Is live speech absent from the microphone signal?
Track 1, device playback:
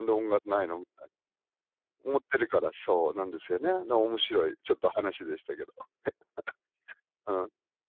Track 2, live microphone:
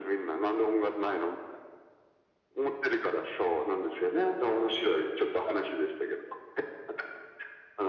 Yes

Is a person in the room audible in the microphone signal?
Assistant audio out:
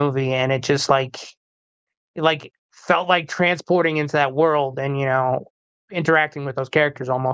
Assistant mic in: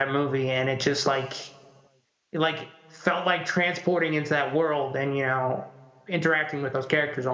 No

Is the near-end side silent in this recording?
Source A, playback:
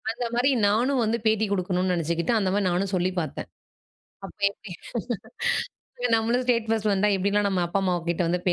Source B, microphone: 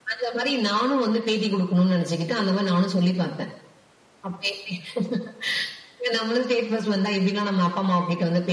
Yes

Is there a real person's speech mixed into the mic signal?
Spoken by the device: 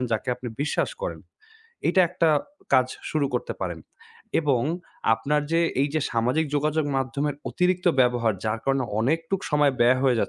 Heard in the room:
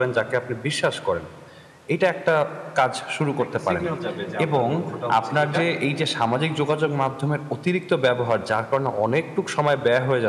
Yes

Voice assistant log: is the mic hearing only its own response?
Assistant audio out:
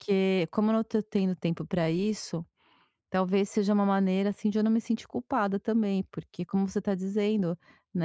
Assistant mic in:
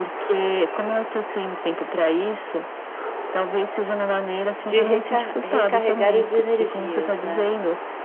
No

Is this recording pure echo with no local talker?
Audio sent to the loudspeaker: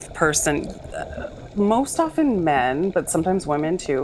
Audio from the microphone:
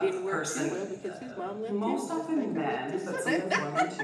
No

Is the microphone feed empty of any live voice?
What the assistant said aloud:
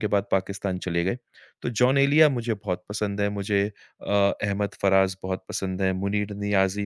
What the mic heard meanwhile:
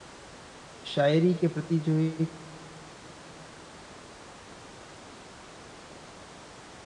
No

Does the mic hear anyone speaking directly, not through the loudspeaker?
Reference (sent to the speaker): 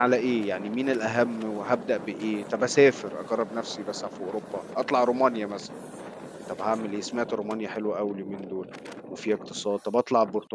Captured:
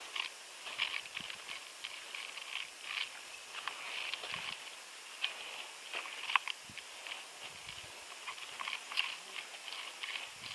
No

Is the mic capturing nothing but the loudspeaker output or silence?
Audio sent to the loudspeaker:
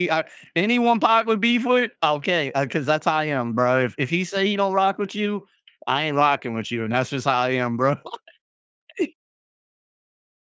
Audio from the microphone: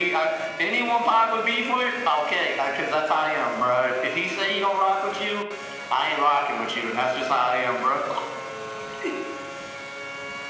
Yes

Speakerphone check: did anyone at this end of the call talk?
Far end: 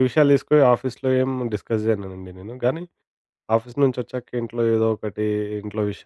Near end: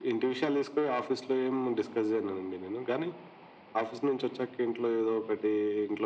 No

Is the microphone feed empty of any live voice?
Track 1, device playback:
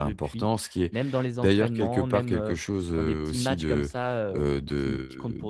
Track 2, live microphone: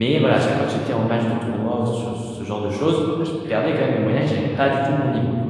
No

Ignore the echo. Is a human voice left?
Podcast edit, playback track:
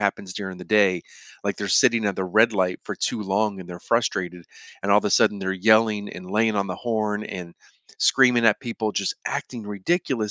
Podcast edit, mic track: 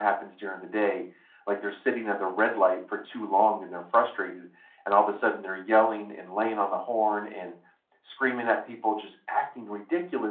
No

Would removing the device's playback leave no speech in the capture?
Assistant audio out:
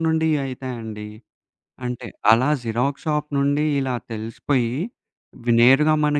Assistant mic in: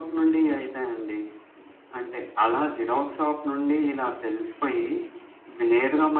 Yes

